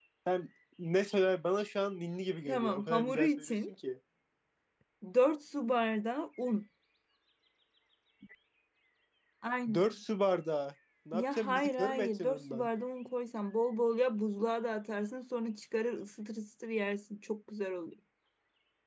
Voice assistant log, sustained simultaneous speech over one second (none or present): present